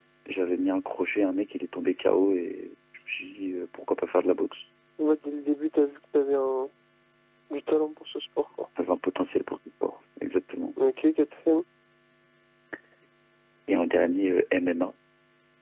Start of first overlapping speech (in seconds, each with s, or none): none